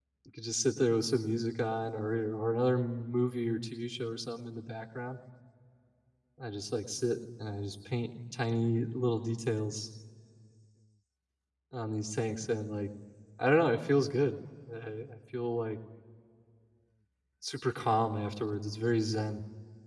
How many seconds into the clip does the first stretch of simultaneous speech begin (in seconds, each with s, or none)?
none